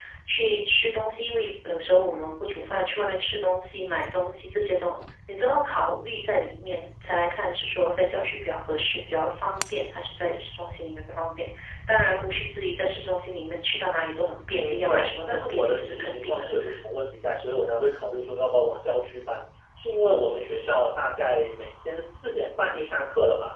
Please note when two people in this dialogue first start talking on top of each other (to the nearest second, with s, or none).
15 s